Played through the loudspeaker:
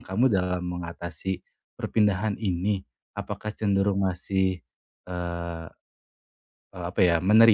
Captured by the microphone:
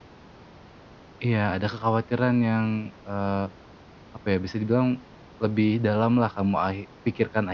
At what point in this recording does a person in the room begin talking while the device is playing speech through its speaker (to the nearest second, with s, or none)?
1 s